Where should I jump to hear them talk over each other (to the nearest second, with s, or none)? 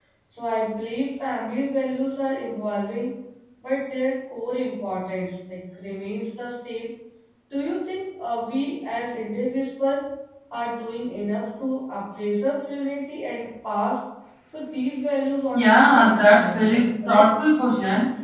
16 s